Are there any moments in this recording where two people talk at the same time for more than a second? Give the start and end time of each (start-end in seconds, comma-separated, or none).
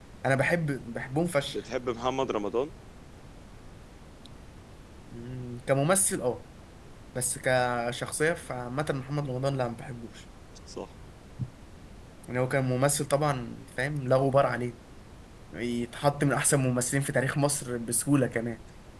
none